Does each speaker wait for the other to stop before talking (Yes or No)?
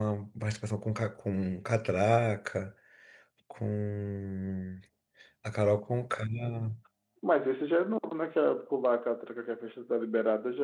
Yes